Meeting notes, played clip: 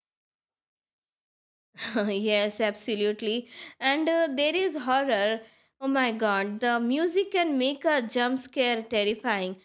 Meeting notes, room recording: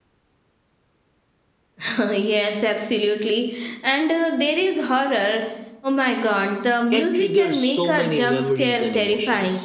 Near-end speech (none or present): present